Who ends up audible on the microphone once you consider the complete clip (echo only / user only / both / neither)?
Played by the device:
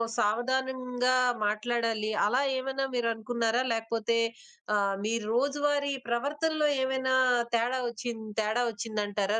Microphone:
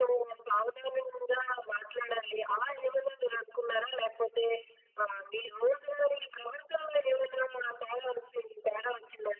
echo only